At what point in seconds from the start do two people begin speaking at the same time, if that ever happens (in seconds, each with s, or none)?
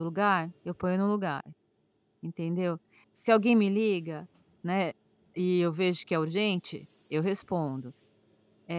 none